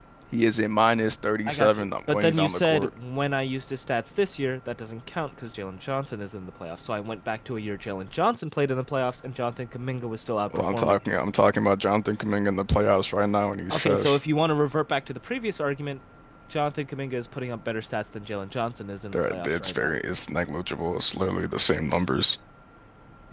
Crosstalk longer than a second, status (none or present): present